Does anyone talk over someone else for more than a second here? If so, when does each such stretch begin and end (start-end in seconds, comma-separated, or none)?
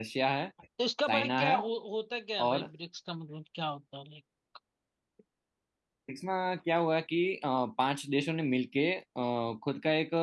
none